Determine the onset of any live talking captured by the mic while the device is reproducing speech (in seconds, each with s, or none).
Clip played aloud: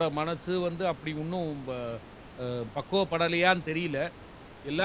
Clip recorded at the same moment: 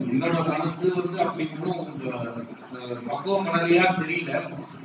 none